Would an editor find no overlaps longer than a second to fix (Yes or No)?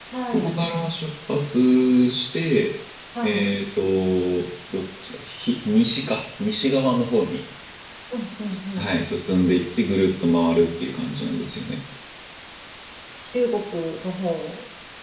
Yes